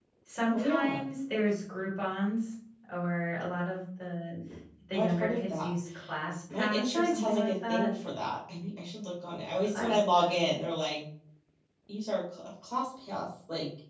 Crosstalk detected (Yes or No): Yes